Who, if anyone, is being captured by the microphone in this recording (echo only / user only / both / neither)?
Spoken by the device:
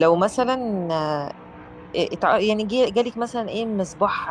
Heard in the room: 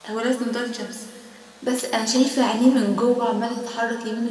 user only